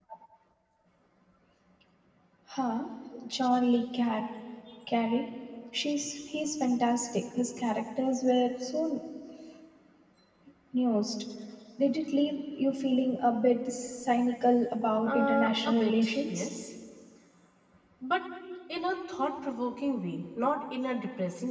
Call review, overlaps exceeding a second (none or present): present